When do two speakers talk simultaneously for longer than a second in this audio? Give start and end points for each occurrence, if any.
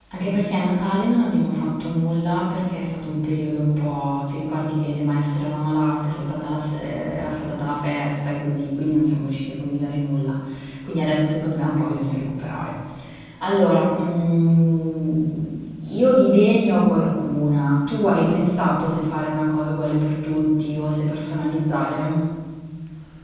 none

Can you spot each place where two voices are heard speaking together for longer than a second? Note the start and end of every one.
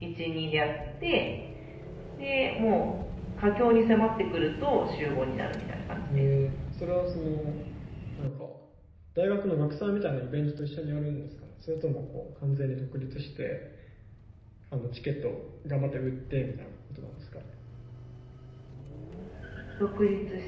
none

